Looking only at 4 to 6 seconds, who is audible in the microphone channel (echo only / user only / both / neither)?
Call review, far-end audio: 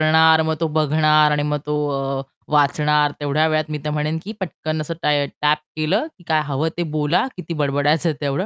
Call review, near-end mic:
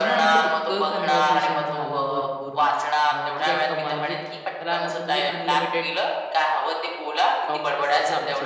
both